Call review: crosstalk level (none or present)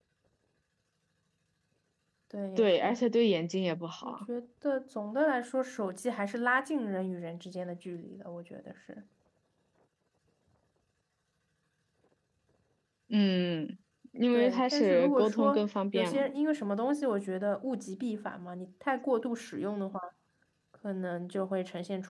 present